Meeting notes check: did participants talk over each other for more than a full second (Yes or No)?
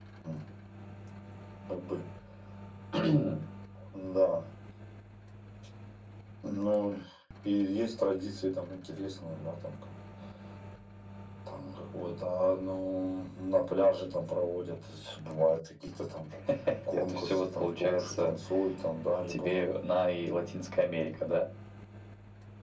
Yes